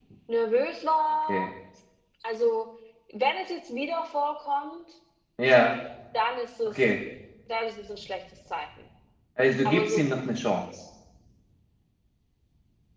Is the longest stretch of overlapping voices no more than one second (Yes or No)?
Yes